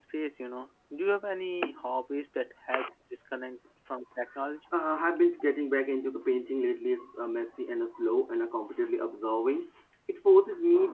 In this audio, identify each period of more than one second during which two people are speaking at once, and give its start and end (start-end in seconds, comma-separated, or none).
none